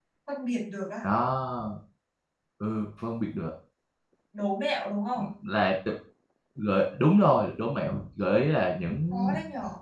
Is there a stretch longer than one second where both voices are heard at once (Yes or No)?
No